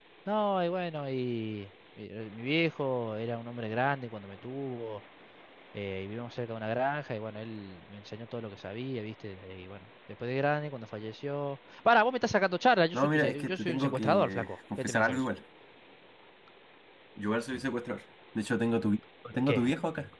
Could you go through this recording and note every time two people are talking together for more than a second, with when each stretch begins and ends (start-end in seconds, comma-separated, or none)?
12.9-15.3